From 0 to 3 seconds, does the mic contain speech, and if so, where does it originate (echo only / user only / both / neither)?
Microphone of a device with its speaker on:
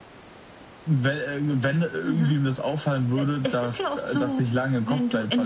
echo only